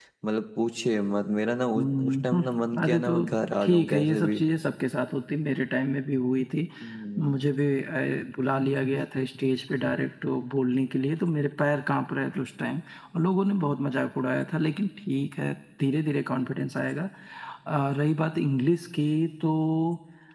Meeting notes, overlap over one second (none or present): present